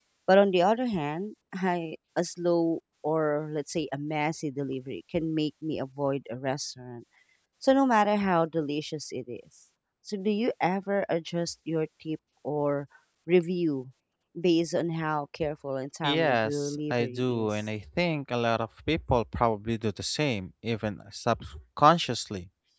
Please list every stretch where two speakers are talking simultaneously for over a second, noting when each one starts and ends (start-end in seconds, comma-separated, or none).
16.0-17.6